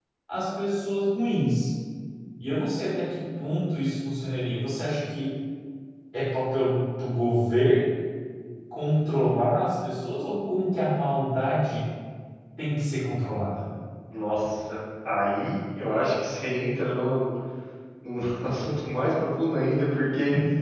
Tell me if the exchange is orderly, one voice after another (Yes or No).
Yes